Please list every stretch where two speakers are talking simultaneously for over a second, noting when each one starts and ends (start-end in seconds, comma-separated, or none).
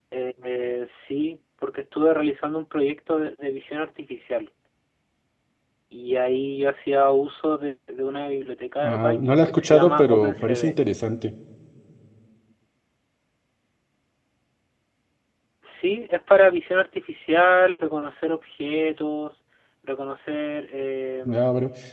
8.8-10.7